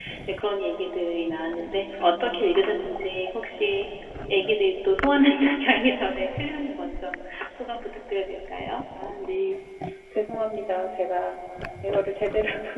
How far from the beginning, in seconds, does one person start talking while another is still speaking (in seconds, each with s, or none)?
none